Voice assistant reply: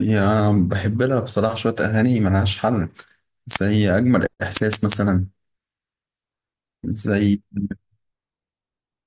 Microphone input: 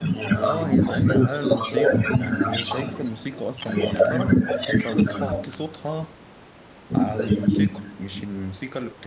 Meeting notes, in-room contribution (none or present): present